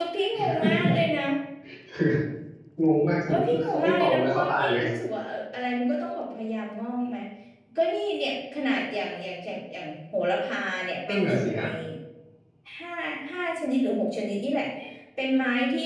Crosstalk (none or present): present